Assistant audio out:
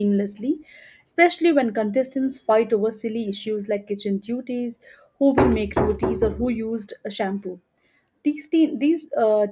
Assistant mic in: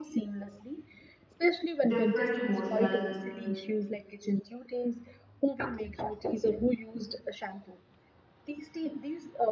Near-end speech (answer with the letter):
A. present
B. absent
A